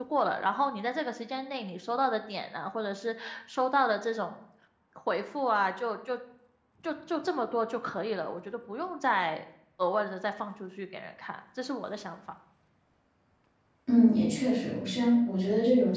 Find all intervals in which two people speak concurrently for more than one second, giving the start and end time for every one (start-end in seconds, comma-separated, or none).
none